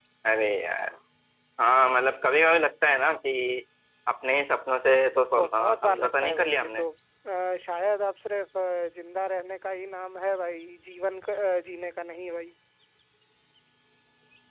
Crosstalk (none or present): present